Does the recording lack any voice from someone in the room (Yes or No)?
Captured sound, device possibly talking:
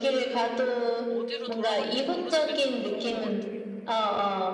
No